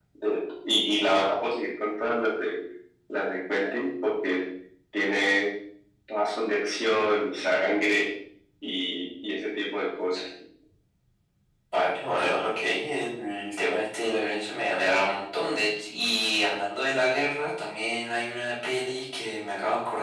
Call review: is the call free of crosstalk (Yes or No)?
Yes